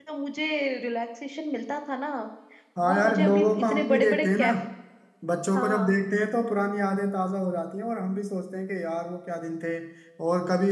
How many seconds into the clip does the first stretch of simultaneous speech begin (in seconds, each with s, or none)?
2.8 s